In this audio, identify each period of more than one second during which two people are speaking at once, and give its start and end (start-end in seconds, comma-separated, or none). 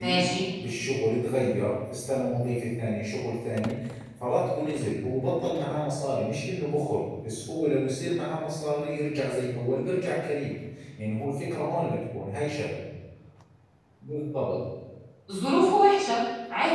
none